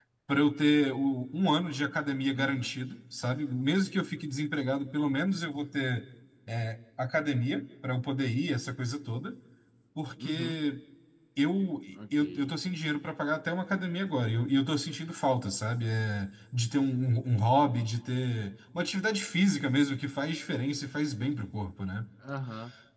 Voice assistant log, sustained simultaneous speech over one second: none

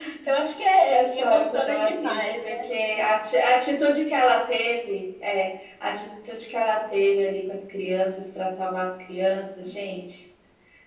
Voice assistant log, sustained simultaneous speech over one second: present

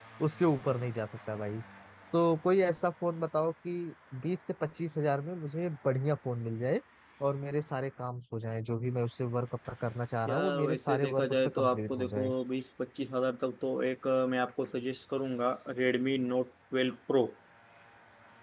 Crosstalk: present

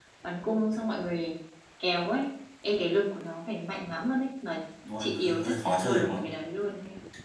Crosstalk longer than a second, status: present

